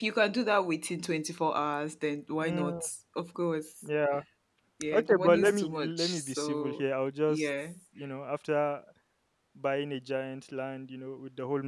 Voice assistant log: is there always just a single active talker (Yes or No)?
No